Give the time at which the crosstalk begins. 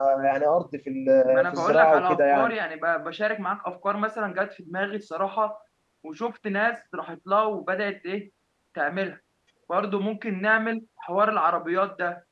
1.3 s

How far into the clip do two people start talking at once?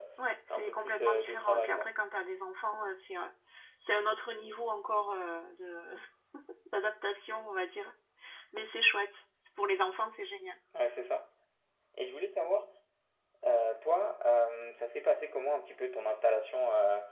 0.5 s

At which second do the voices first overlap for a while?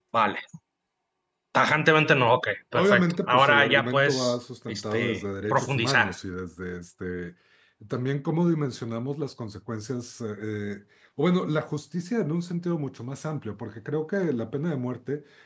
2.7 s

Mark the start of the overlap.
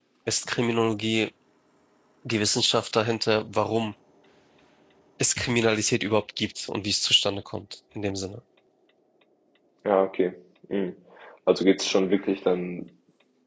none

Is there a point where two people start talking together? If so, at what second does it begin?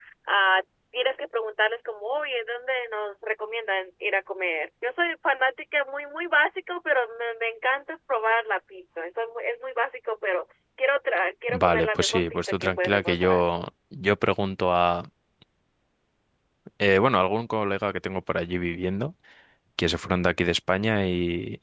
11.5 s

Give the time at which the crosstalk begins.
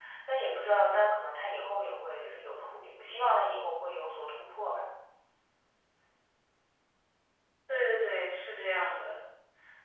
none

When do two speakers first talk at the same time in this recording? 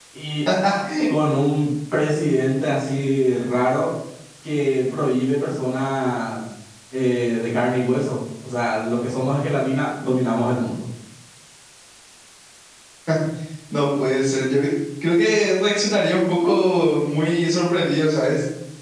none

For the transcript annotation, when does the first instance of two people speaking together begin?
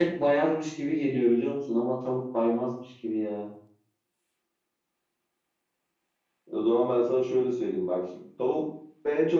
none

